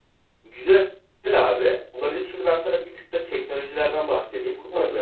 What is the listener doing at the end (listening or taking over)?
listening